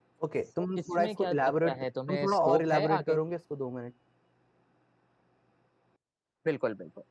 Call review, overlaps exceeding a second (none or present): present